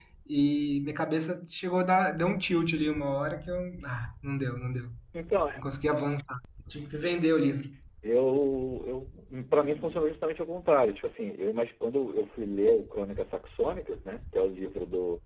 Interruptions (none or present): none